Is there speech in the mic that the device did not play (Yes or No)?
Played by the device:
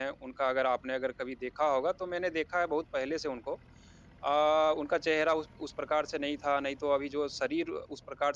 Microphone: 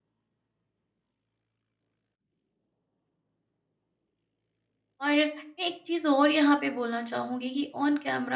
Yes